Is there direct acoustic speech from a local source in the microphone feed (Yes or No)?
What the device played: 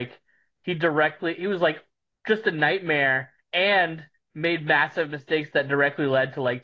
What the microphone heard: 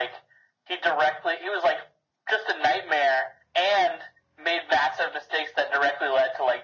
No